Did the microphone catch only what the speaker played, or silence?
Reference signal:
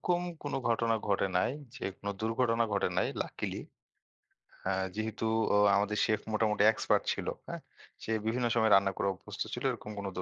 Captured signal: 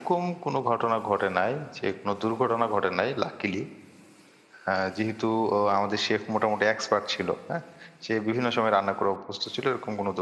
Yes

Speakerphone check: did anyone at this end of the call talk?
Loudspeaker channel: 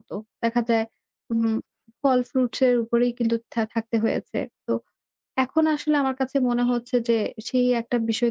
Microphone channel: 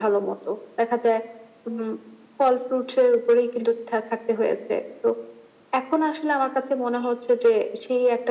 No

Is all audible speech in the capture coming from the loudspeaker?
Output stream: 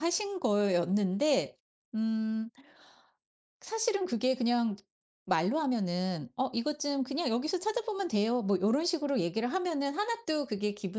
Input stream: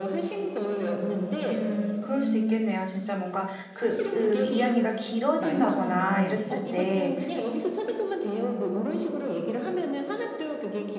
No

